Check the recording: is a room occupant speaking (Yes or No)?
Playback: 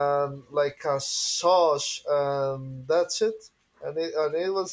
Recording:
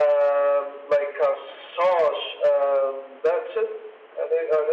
No